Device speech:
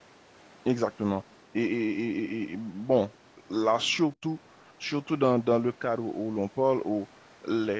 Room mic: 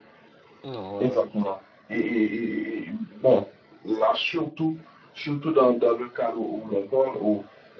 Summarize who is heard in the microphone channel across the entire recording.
both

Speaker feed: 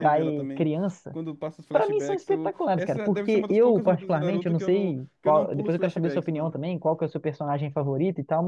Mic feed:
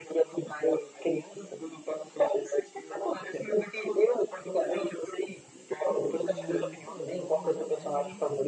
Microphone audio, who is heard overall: both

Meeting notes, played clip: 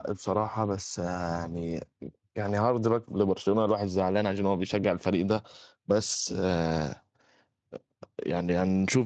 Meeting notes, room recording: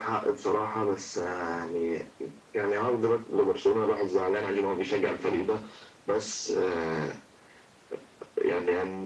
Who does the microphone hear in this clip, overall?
echo only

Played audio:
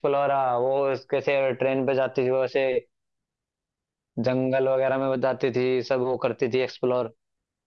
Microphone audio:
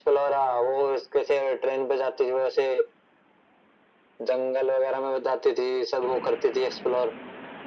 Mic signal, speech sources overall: echo only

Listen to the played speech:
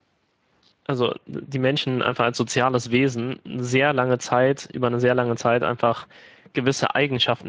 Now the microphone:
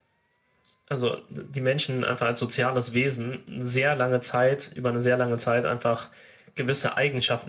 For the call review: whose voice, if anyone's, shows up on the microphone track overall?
echo only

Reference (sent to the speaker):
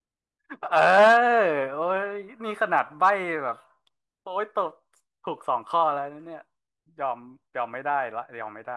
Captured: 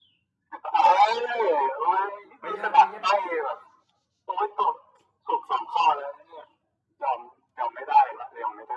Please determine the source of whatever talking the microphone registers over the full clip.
both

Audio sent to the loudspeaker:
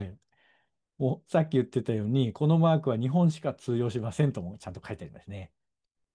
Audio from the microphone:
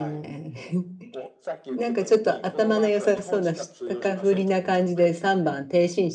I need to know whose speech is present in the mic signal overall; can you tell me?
both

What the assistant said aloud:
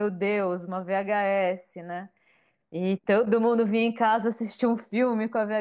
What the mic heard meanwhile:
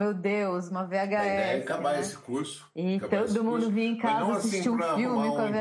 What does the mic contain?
both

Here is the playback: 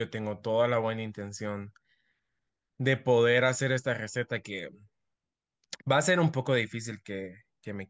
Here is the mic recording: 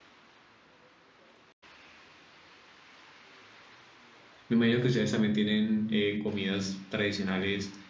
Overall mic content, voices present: user only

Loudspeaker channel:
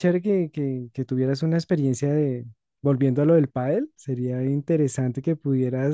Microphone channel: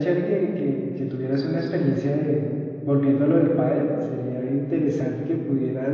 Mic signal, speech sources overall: echo only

